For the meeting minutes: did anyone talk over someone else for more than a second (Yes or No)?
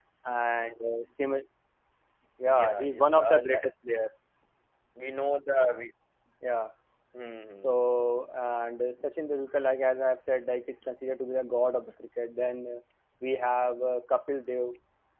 Yes